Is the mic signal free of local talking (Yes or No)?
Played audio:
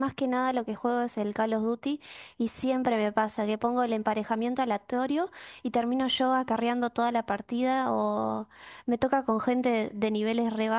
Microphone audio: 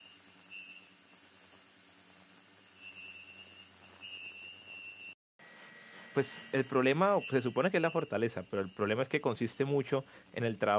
No